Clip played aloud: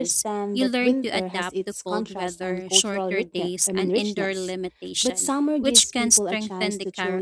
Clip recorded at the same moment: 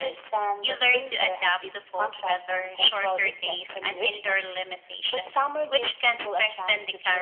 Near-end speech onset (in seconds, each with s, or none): none